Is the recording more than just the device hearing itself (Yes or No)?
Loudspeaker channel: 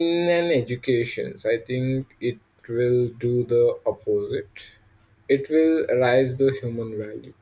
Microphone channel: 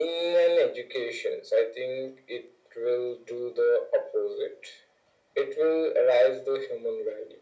No